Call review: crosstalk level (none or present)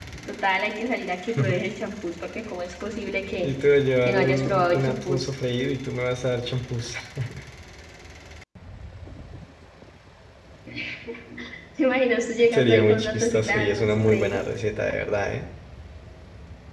present